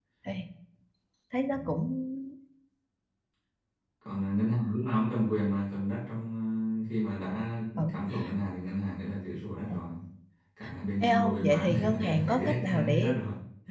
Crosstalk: present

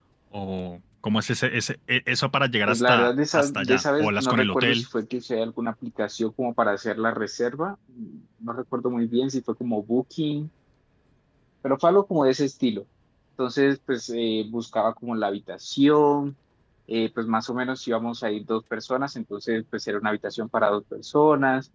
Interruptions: present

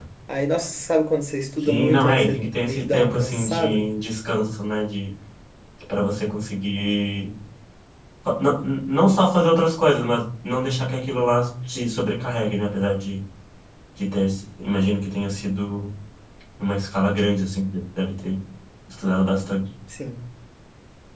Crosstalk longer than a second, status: present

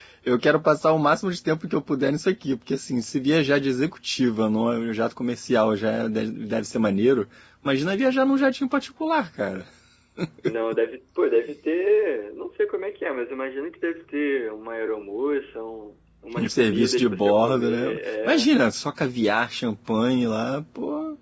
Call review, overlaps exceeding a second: present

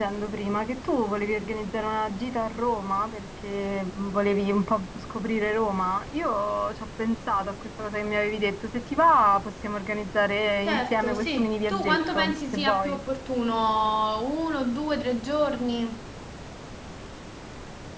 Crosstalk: present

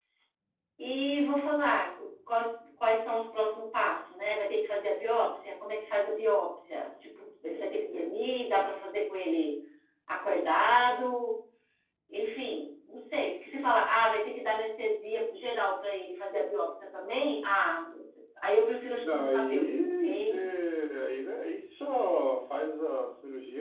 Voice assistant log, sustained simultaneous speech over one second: present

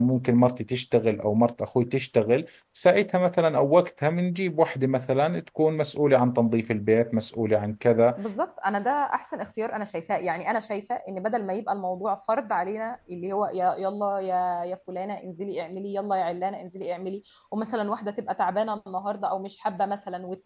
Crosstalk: none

